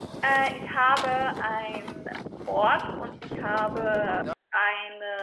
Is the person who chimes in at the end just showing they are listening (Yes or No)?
Yes